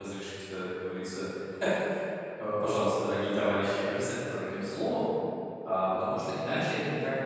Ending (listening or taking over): listening